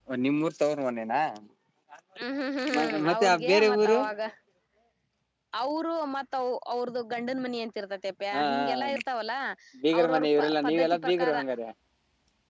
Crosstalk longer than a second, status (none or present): present